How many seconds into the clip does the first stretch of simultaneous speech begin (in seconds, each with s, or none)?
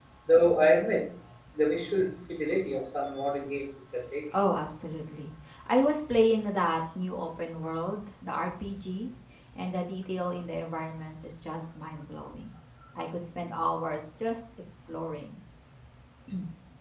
none